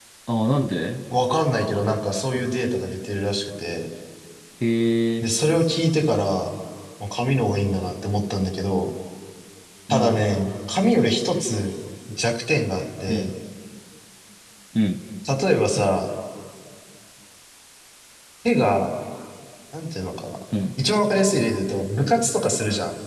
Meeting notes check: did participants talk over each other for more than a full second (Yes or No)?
No